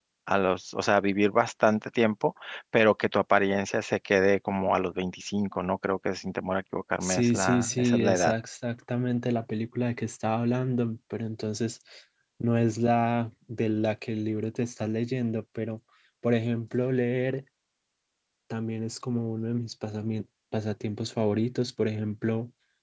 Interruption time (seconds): 7.0 s

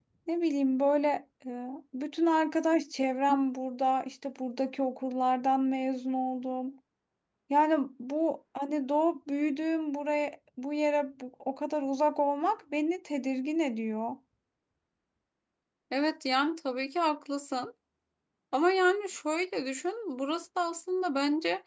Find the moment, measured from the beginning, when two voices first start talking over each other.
none

